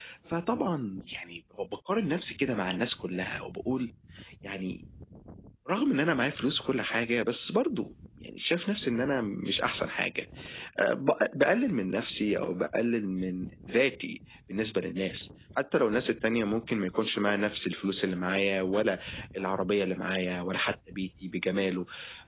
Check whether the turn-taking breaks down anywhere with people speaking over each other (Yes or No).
No